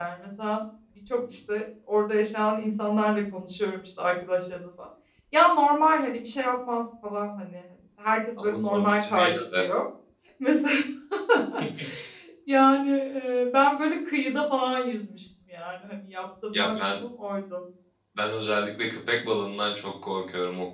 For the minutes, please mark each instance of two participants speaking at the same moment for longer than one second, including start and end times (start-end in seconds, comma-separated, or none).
8.4-9.6